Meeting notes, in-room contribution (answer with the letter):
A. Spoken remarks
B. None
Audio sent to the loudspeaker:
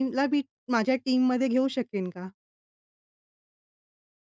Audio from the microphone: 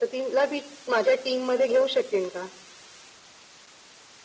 B